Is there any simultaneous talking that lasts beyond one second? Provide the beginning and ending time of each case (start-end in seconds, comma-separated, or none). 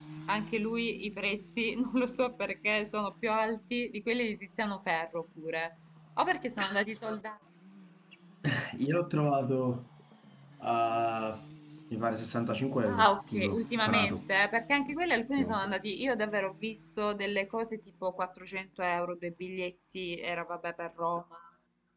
12.9-14.2